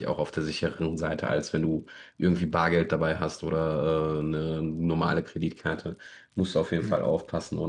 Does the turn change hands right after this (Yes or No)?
No